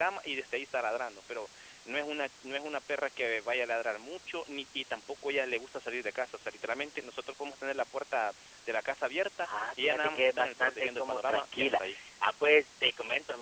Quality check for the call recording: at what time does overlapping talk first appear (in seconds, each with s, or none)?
9.4 s